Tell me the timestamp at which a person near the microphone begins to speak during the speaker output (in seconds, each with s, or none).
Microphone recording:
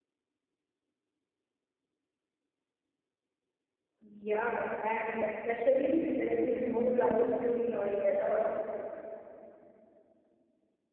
4.0 s